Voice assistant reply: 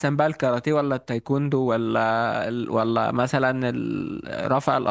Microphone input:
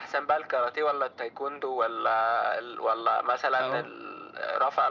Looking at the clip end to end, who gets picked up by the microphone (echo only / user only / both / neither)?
both